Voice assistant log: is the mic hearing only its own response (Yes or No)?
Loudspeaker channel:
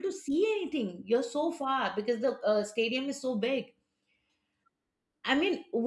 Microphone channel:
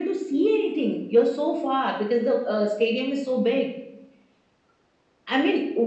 Yes